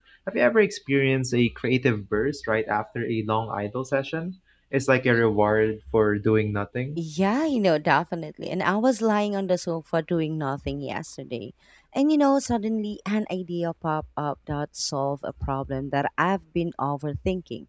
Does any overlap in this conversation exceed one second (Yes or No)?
No